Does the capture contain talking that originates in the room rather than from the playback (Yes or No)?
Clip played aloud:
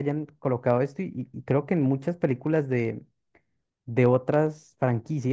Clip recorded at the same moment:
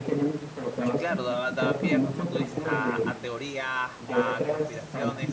Yes